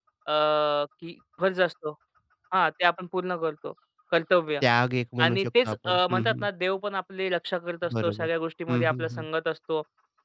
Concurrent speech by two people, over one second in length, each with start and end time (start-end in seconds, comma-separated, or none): 5.2-6.5